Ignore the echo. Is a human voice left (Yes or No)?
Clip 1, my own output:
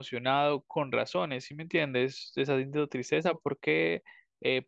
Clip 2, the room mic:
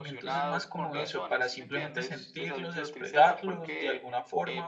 Yes